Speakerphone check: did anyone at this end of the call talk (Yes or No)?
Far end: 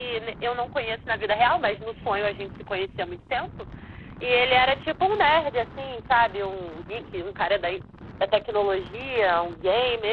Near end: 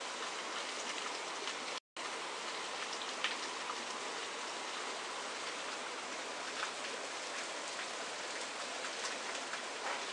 No